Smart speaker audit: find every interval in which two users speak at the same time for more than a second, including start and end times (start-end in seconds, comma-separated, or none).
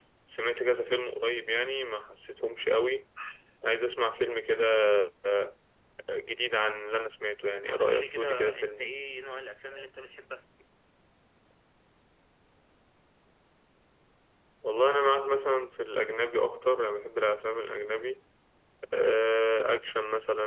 7.6-8.8